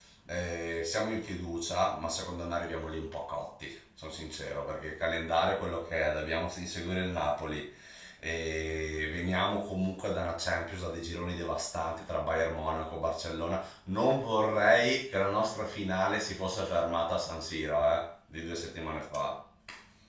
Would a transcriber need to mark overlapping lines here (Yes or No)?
No